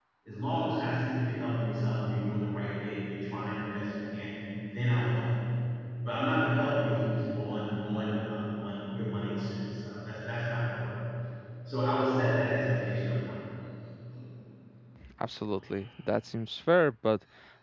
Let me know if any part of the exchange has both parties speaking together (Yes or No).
No